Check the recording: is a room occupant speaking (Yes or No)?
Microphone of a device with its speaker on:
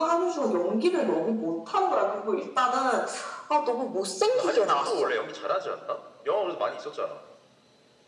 No